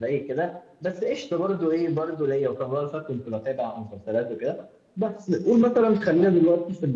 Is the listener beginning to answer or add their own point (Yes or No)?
No